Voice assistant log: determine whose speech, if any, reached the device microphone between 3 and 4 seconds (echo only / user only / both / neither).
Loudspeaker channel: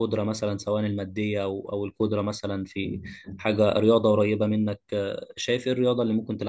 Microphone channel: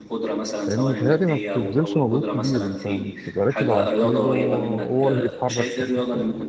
both